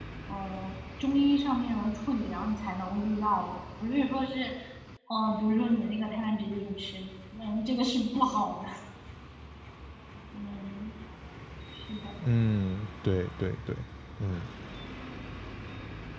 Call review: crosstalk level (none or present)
none